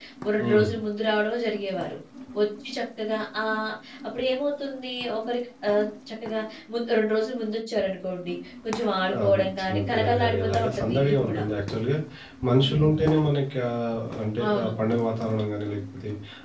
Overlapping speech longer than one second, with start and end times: 9.2-11.4

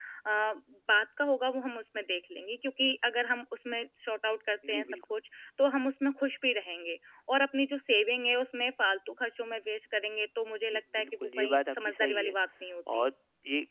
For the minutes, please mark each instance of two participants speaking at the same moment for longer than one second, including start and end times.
10.7-12.3

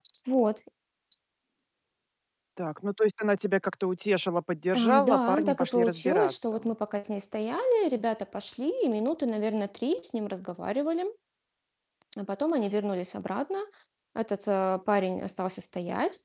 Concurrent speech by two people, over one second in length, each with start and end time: 4.7-6.7

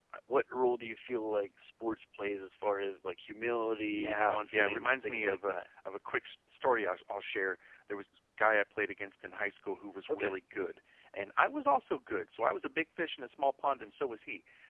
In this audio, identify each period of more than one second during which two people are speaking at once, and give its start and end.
4.0-5.6

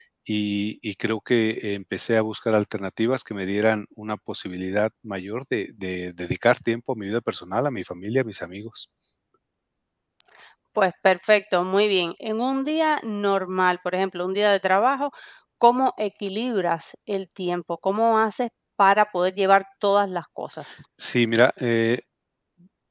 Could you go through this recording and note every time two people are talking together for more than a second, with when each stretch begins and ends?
none

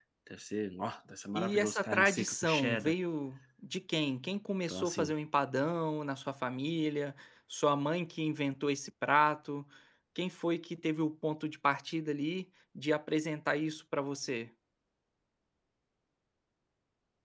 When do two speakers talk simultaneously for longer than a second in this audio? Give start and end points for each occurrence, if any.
1.4-2.9

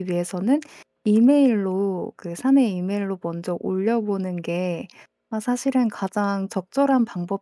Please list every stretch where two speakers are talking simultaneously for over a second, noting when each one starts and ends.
none

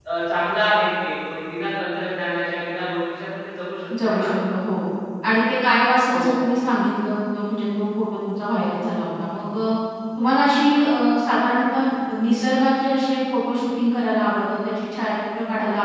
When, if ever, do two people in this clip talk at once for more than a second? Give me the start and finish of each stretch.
none

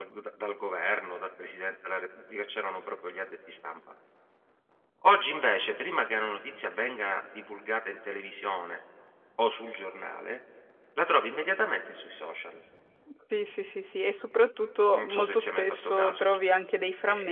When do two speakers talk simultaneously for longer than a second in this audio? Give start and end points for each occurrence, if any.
15.0-16.2

